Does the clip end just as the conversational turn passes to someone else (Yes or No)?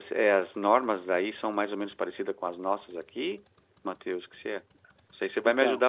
No